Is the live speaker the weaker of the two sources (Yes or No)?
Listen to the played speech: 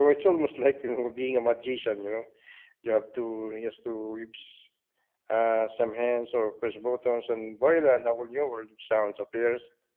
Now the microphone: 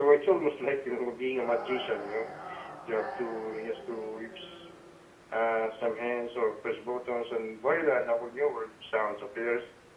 Yes